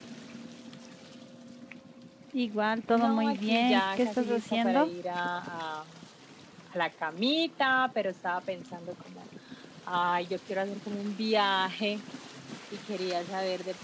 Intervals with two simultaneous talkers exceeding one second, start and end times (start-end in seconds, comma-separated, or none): 2.9-4.9